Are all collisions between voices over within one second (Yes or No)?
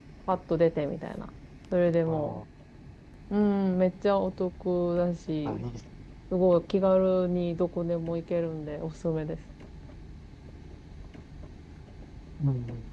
Yes